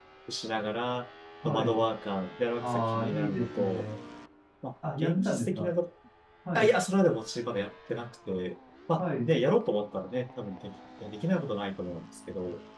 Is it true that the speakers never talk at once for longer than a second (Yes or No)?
No